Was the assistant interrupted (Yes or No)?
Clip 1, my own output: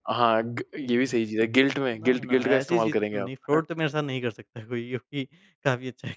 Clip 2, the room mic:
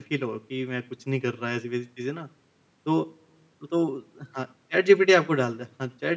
Yes